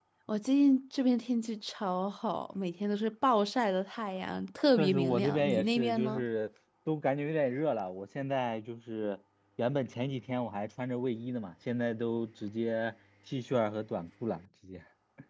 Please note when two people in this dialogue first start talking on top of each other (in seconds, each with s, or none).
4.8 s